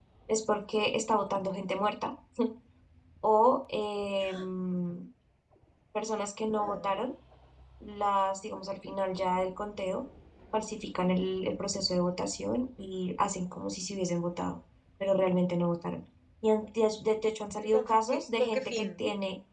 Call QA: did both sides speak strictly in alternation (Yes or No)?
No